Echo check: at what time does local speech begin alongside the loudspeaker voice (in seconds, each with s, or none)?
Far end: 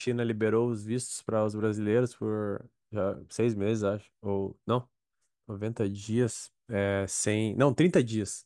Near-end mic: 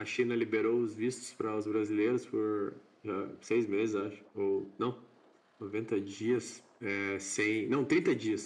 none